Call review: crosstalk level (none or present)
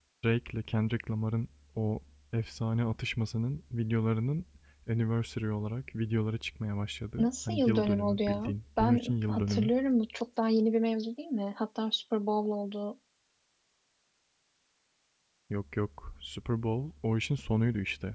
present